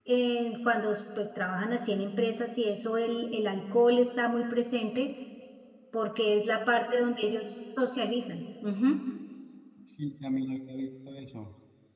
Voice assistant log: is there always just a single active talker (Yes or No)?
Yes